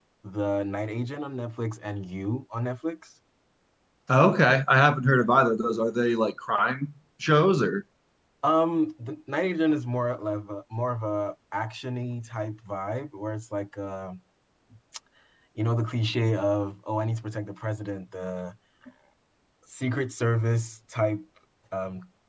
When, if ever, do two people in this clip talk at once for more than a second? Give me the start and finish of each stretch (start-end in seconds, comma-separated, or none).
none